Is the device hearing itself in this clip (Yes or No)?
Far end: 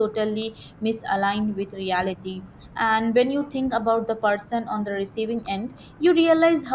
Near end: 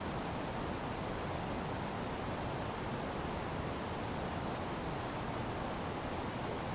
No